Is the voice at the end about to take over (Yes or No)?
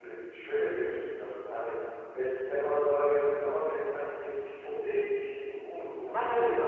Yes